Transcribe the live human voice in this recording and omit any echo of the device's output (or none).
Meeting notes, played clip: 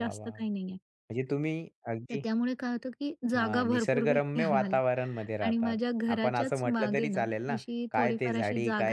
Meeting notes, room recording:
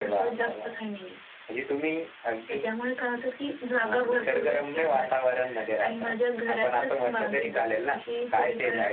none